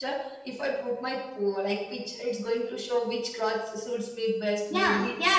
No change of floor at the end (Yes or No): No